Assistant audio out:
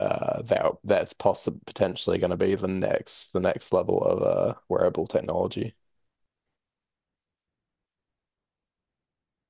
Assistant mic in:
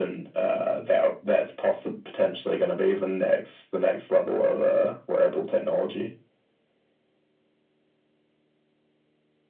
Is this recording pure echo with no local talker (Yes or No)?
Yes